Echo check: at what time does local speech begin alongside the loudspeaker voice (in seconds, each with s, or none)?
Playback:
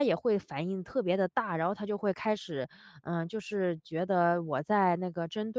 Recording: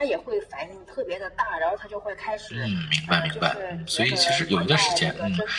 2.5 s